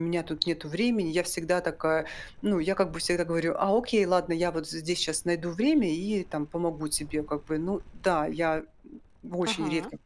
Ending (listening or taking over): taking over